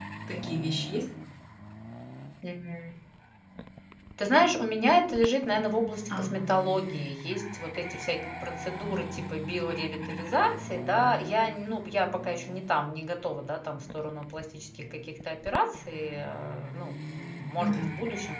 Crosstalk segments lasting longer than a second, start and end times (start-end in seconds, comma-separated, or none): none